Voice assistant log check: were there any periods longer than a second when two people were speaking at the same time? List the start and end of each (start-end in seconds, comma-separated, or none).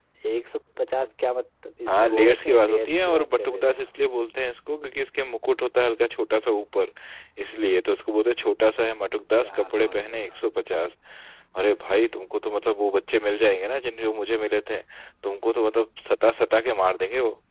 1.9-3.9, 9.4-10.7